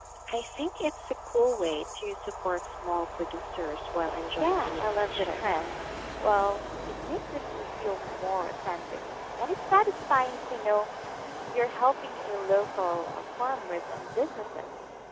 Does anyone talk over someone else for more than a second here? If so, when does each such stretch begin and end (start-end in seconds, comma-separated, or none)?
4.4-5.6